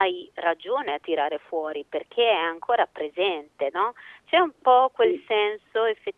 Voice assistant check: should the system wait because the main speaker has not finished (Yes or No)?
Yes